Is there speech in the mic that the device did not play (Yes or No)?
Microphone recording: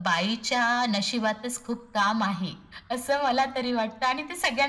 No